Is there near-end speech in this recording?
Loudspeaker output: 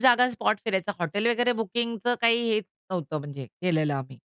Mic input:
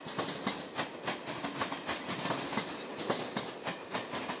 No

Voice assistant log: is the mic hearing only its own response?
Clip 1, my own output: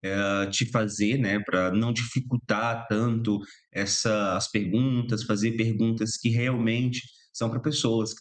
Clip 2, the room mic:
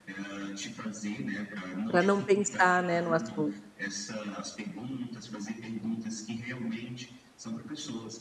No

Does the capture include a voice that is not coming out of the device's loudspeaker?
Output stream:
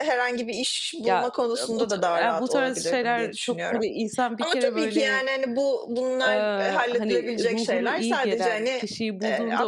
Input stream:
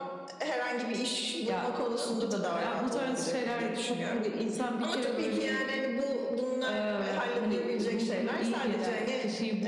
No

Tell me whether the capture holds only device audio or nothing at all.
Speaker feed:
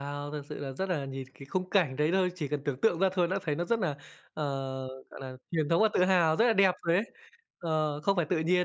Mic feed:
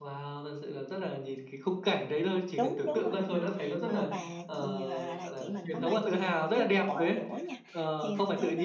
No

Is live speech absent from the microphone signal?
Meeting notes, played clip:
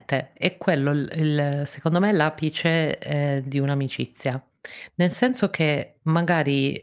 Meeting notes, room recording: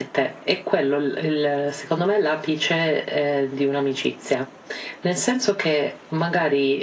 Yes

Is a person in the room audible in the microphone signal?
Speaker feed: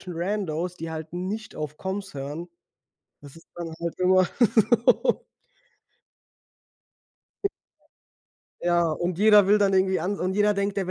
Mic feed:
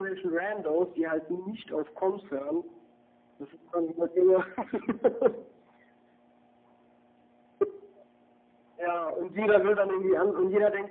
No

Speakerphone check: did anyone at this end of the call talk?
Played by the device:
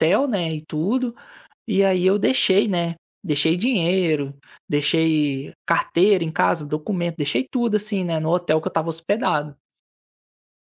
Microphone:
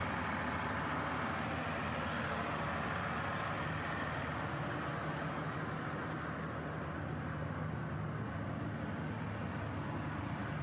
No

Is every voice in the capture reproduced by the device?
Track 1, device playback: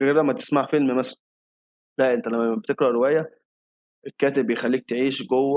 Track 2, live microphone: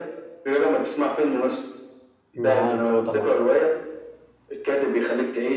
No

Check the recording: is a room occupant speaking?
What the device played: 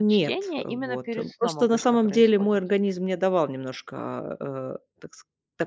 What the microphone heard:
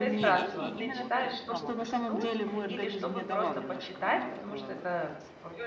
Yes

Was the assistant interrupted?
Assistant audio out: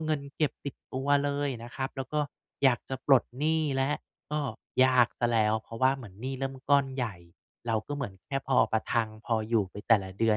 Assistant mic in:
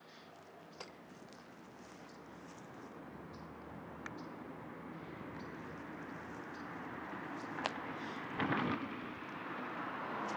No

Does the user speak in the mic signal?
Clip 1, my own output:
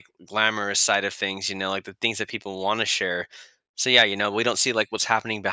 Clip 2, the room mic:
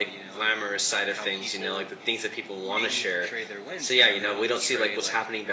Yes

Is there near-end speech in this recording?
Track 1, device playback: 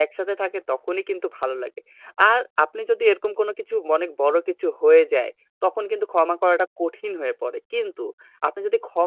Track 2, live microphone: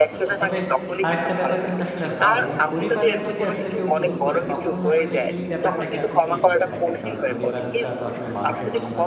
Yes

